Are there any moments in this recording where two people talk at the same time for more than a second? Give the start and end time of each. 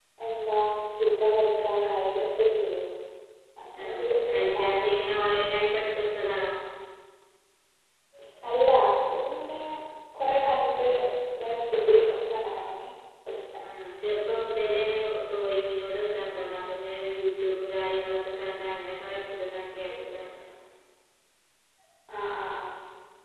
3.8-5.0

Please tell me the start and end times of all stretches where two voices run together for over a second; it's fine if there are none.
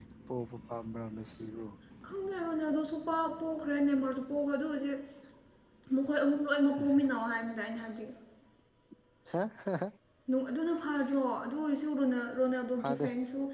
none

